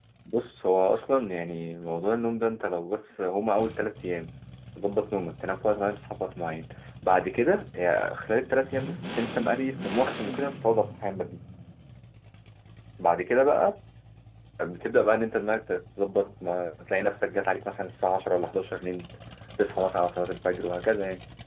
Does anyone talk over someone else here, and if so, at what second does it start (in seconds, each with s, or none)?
none